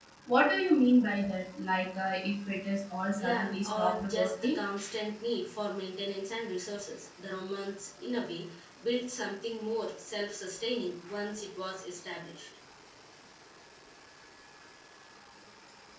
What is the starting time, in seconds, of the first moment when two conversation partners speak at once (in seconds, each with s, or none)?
3.2 s